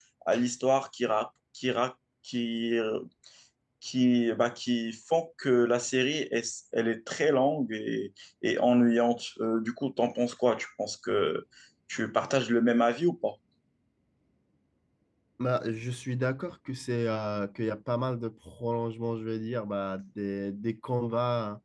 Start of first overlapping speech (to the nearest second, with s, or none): none